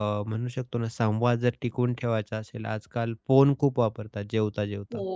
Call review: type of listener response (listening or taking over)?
listening